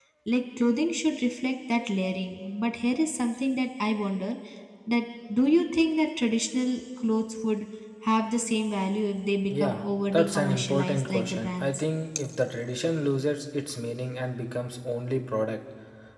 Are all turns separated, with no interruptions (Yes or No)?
No